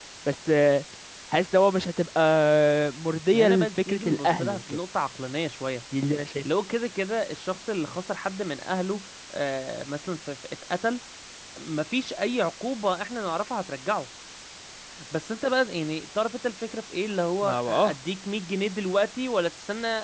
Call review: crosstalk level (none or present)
present